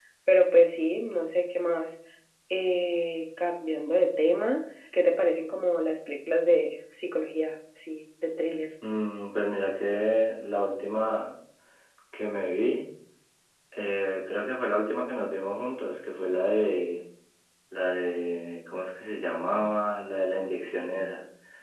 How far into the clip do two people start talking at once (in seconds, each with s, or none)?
none